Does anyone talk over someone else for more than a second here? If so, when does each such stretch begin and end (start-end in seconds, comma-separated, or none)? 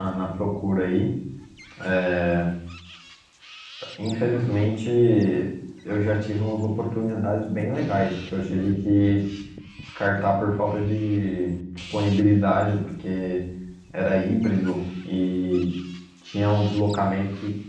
none